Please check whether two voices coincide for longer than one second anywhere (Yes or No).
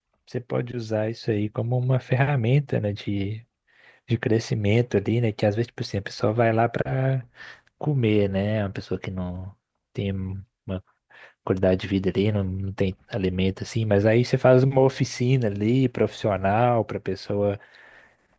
No